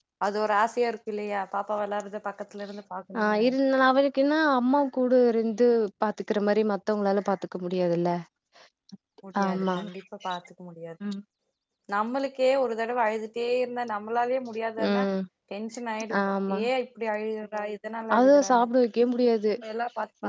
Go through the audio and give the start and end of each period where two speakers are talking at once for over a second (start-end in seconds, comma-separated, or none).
none